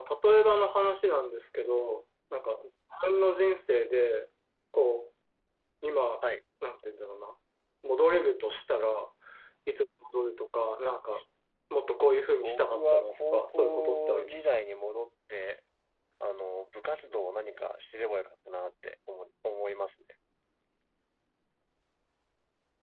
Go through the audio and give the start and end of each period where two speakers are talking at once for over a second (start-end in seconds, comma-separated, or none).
12.3-14.5